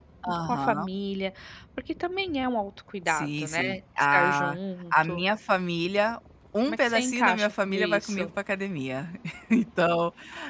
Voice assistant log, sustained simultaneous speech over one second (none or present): present